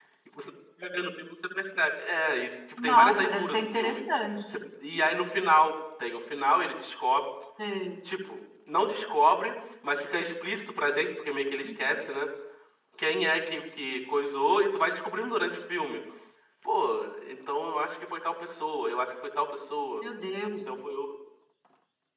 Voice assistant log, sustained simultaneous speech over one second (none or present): present